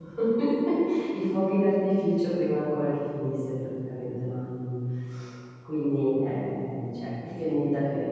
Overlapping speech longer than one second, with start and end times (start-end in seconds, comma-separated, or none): none